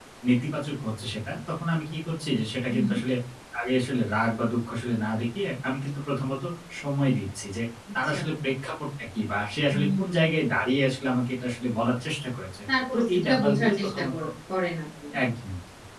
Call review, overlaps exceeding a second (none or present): present